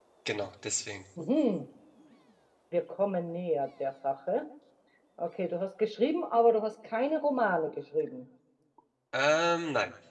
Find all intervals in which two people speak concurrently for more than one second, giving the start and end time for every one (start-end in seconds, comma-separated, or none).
none